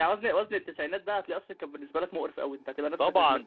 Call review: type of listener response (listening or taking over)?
taking over